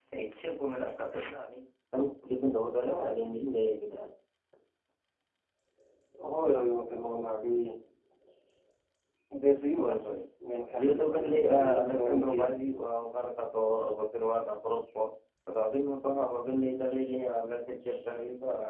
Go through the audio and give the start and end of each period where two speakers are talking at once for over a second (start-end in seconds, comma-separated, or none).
10.8-12.4